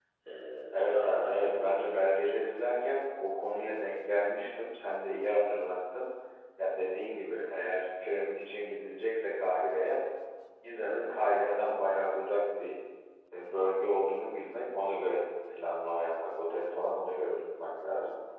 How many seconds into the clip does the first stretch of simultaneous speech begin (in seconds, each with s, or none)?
0.9 s